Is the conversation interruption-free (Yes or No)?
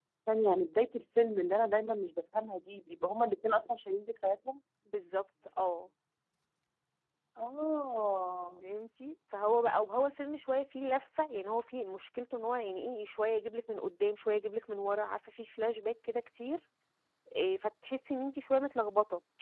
Yes